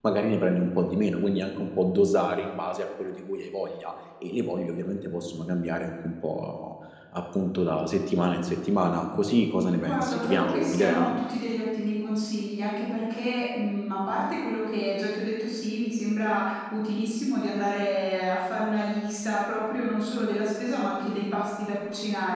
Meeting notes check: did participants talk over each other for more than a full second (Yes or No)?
Yes